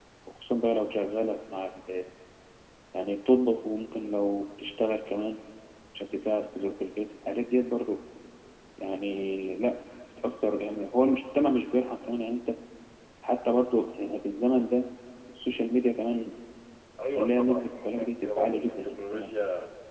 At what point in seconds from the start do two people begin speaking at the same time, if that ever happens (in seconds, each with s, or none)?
17.1 s